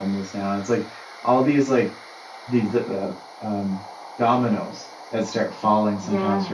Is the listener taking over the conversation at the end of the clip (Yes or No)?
No